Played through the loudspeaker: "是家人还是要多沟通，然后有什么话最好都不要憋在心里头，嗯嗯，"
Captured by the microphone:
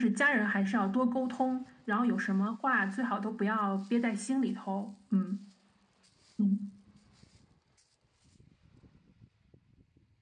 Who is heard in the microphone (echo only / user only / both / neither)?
echo only